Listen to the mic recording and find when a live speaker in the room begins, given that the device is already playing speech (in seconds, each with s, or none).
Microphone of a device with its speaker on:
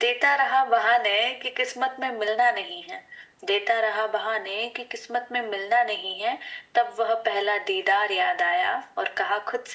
none